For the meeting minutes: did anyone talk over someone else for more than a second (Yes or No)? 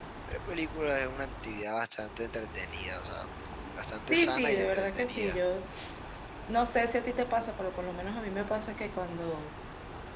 Yes